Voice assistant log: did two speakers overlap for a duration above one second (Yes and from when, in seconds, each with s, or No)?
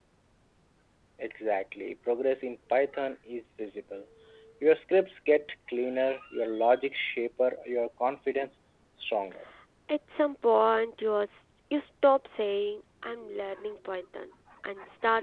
No